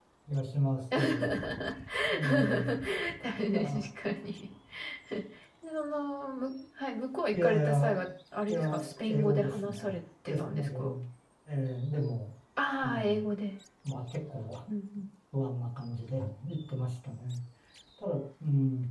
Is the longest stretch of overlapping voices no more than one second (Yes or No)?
No